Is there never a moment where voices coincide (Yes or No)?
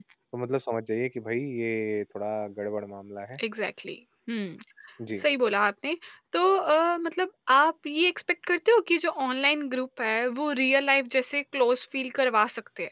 Yes